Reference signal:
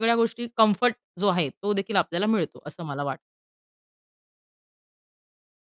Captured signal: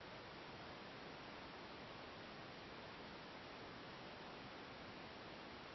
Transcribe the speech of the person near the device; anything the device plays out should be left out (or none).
none